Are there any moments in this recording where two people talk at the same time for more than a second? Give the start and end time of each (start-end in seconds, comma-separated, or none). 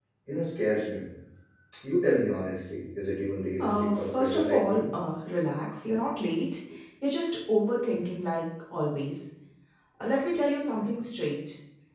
3.6-4.8